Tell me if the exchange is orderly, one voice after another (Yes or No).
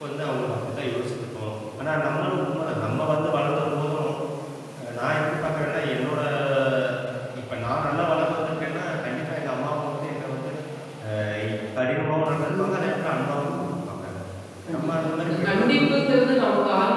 No